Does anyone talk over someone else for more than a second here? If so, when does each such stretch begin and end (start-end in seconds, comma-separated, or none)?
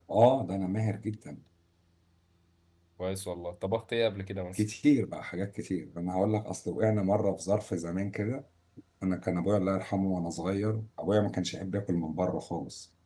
none